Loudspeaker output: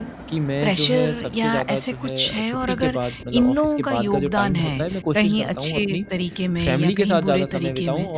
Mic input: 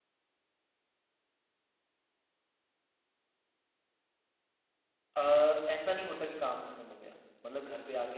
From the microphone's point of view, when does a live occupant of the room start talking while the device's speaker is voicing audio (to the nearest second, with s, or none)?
5 s